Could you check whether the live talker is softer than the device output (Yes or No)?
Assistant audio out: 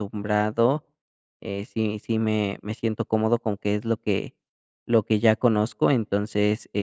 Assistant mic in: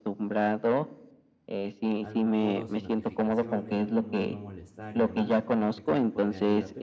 Yes